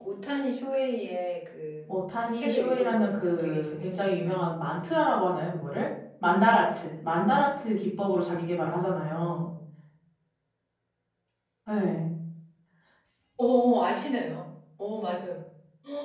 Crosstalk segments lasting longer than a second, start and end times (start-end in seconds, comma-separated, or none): 2.3-4.4